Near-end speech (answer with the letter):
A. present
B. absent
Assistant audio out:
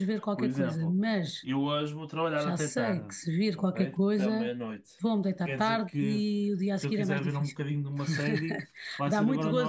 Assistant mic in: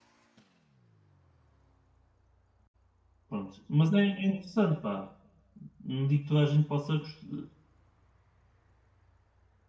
A